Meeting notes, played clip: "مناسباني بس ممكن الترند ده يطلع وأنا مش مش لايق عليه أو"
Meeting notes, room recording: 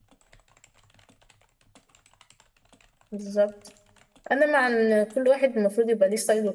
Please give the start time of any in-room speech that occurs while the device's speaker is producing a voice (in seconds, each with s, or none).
3.1 s